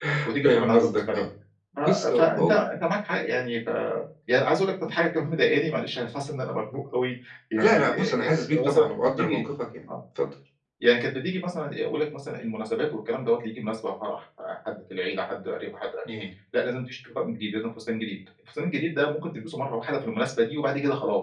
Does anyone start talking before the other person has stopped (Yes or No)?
Yes